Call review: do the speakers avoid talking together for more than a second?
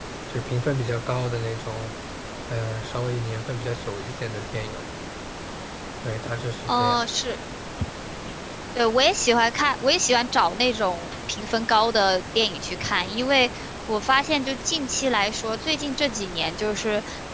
Yes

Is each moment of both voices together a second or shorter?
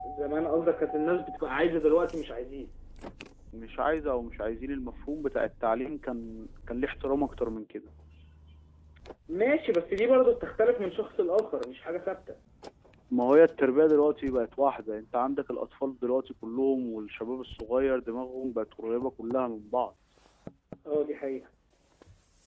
Yes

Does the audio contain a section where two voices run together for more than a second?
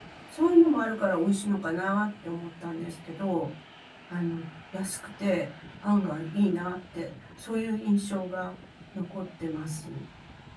No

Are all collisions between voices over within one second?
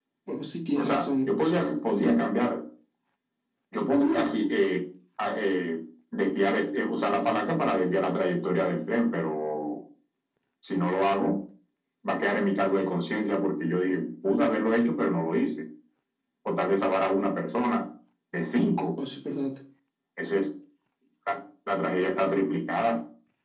Yes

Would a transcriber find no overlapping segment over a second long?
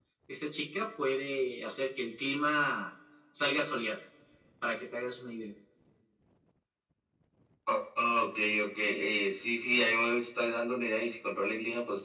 Yes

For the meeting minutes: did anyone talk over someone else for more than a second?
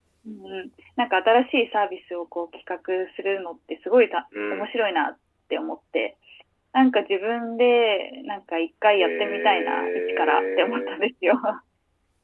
Yes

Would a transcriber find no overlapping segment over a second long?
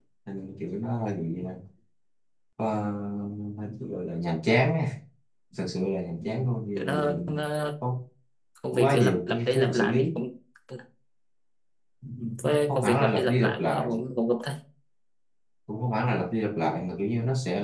No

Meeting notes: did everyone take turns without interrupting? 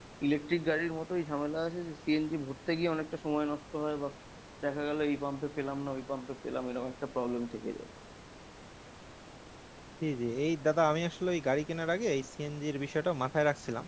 Yes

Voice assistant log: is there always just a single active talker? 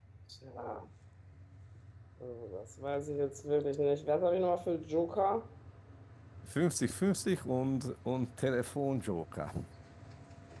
Yes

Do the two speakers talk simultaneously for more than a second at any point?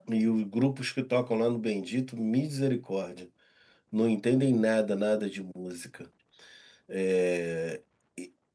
No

